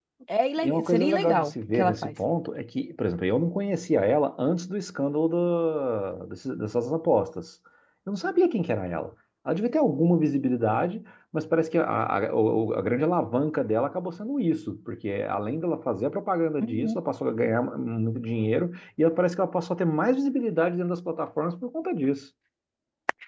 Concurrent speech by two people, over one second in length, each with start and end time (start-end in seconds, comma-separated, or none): 0.6-2.1